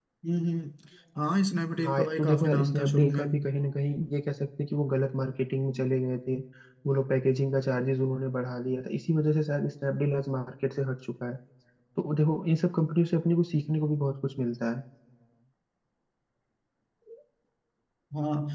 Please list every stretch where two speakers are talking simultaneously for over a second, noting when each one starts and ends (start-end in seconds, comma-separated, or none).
1.8-3.2